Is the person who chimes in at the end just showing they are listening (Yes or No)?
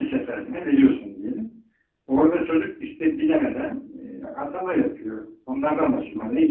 Yes